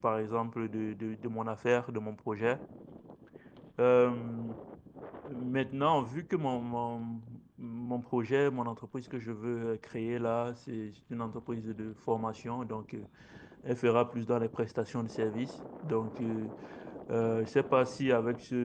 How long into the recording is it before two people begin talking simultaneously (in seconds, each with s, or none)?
none